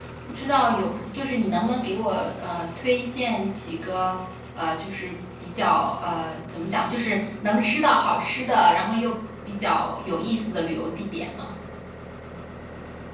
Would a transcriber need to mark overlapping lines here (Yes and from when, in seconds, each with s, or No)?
No